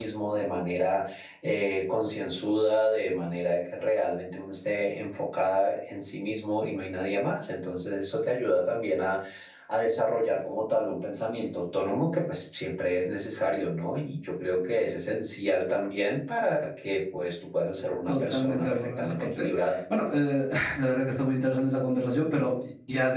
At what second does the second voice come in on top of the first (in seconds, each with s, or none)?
18.1 s